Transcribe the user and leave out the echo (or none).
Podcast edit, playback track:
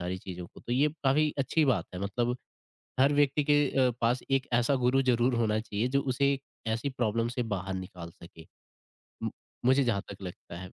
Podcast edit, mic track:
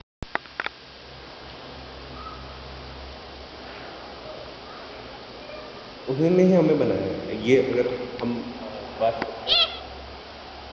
उन्होंने ही हमें बनाया है। ये अगर हम अ, बात करते हैं